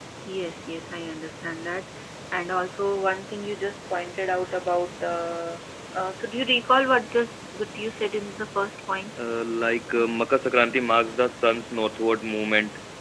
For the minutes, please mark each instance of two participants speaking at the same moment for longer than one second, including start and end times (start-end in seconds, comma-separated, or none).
none